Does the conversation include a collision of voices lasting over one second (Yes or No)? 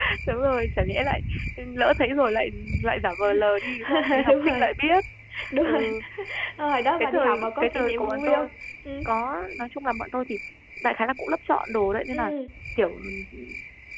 Yes